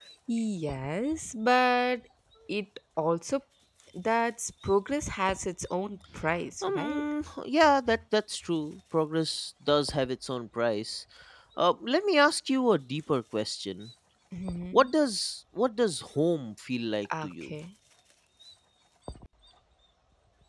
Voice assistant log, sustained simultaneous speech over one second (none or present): none